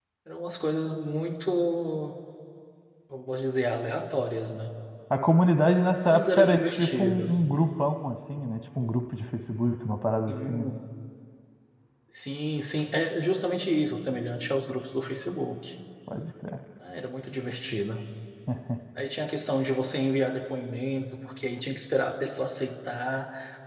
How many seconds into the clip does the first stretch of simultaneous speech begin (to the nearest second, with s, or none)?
6 s